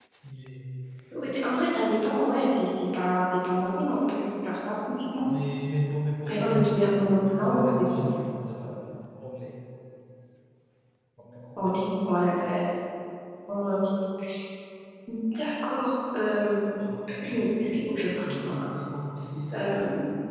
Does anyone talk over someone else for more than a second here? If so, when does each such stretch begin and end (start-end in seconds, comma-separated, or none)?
6.2-8.0